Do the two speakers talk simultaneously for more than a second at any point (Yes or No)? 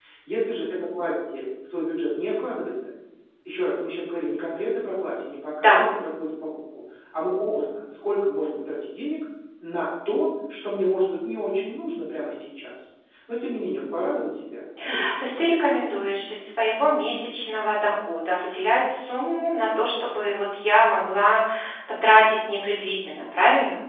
No